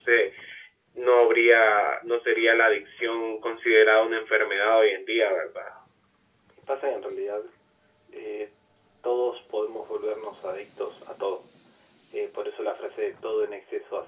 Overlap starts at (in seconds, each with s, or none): none